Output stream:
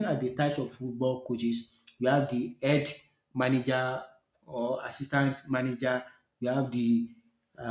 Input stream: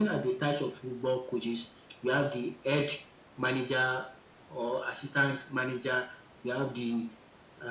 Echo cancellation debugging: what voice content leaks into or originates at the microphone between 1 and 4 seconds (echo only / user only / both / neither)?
echo only